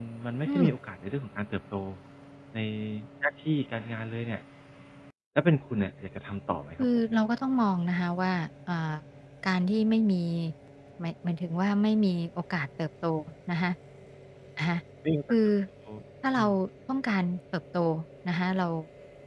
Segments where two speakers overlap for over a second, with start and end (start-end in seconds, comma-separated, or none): none